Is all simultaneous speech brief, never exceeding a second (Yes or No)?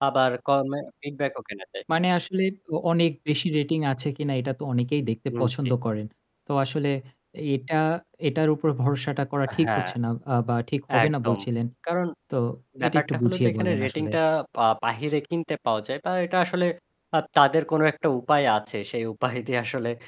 No